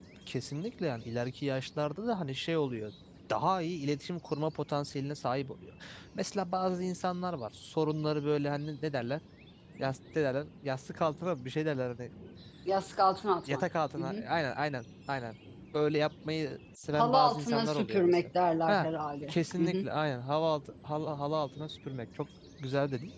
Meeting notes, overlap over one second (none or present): present